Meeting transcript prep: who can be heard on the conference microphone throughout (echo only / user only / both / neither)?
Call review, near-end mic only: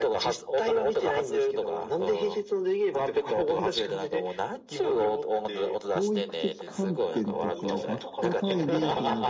both